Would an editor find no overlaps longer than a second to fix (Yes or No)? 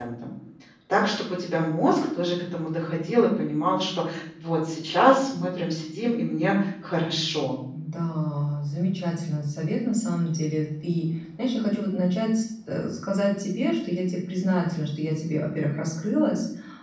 Yes